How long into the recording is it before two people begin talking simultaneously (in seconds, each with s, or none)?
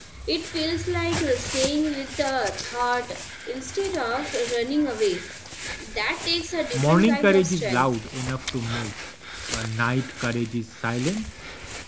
6.7 s